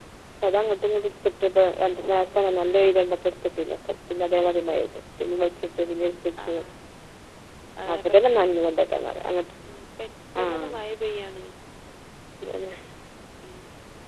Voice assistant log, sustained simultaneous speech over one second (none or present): none